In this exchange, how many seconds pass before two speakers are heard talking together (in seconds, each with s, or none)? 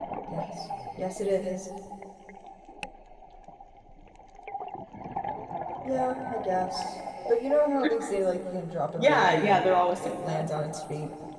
9.0 s